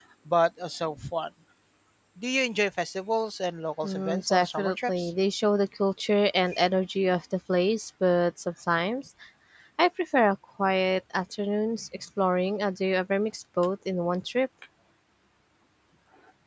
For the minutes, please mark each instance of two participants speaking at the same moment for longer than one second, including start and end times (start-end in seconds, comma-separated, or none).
3.8-5.1